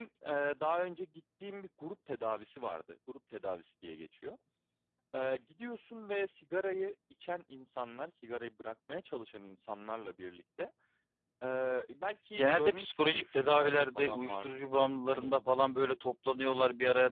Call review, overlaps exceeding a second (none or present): present